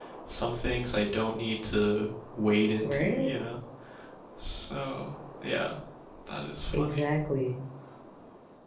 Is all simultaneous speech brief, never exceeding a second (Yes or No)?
Yes